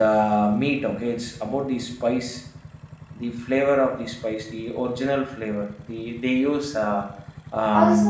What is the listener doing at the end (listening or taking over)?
taking over